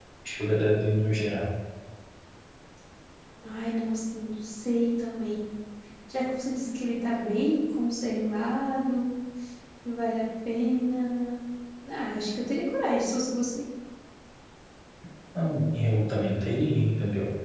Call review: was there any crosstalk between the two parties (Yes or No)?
No